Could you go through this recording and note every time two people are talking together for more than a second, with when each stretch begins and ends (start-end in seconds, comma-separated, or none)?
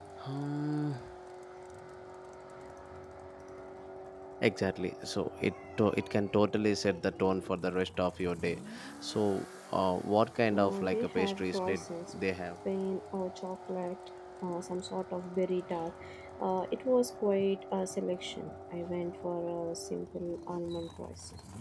10.5-12.1